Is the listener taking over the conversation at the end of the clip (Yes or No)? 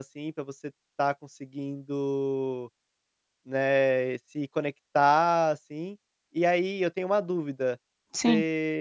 No